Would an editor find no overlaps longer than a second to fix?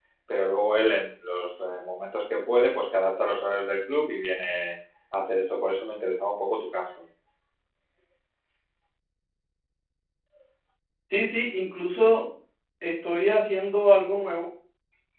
Yes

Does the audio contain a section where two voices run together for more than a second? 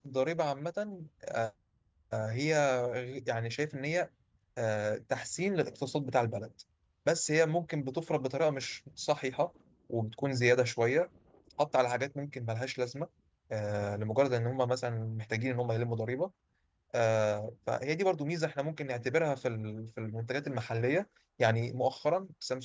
No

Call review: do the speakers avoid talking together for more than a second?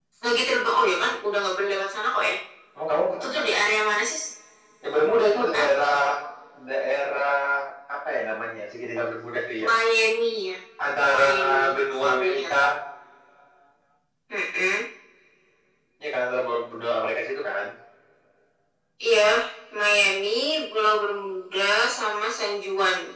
No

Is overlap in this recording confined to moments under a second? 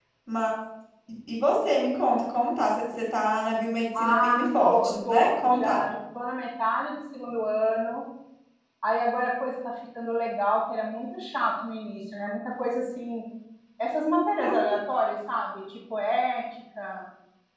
No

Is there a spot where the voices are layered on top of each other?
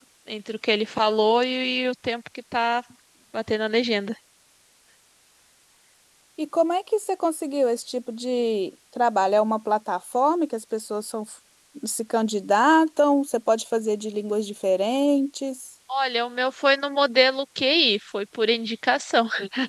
No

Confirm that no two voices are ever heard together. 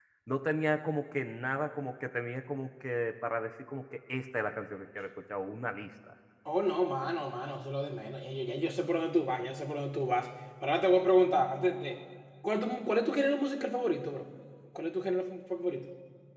Yes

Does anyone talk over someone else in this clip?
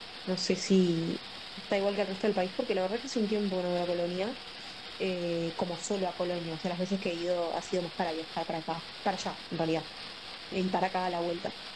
No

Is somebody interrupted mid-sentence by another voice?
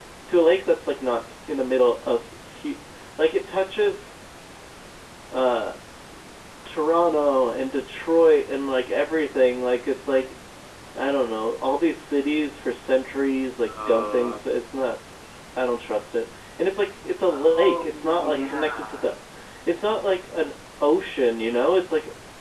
Yes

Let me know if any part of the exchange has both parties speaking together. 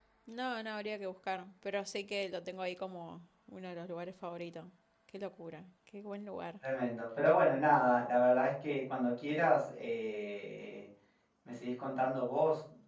No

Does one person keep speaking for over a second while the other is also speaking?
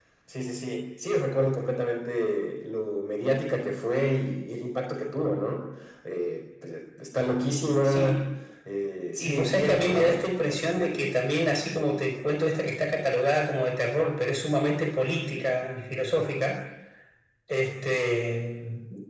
Yes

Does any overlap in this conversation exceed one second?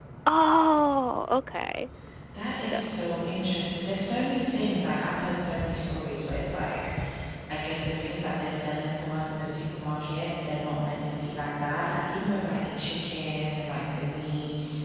No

